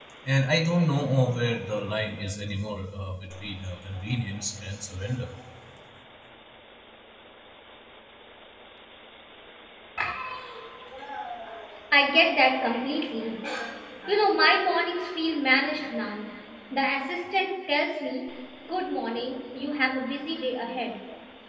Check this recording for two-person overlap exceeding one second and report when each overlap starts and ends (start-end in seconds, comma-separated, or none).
none